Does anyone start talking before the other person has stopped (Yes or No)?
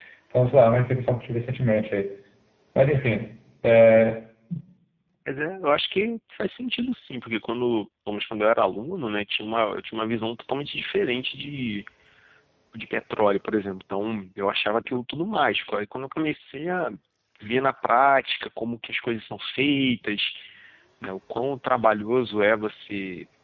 No